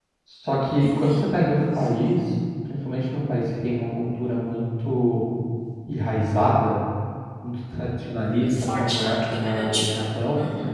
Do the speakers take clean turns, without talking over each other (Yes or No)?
No